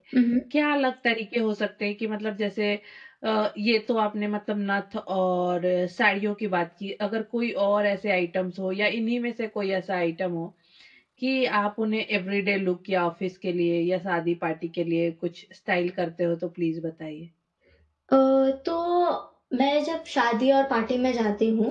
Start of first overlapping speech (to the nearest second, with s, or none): none